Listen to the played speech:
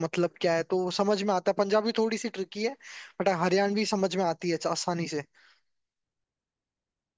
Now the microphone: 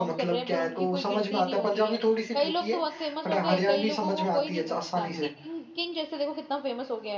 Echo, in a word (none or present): present